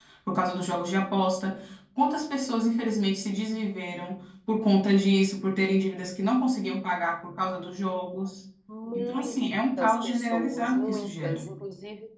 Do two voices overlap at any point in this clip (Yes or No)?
Yes